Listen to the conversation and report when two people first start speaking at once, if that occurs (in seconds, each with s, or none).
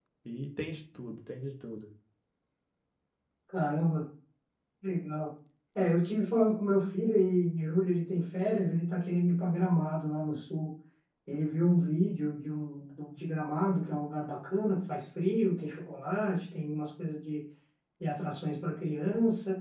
none